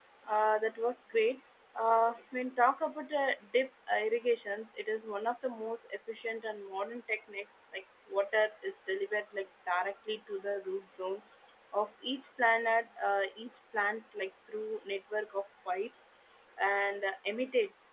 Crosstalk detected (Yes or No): No